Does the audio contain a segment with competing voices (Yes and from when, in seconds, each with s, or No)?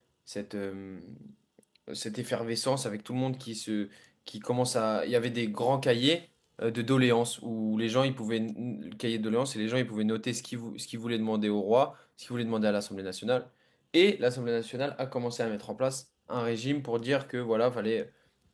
No